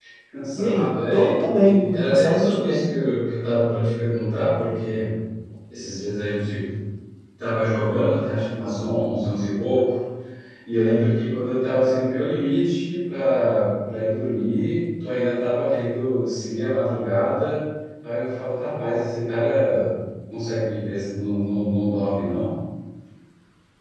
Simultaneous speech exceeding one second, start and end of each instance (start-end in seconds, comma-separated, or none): 0.6-2.9